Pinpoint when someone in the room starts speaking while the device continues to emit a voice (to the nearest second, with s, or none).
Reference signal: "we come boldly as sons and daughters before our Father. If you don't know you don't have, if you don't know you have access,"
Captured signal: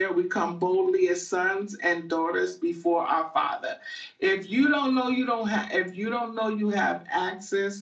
none